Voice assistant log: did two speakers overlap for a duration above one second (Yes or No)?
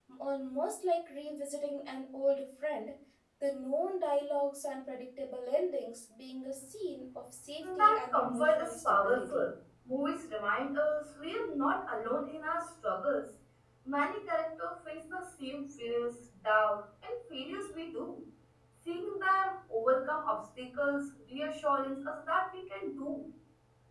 Yes